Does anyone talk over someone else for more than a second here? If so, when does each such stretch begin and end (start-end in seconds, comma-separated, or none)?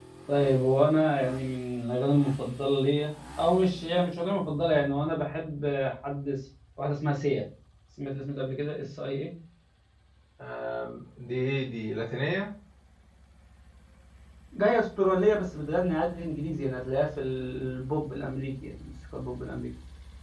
none